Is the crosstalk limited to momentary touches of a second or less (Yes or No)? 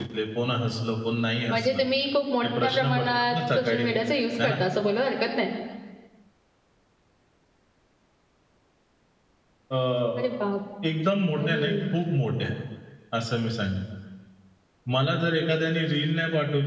No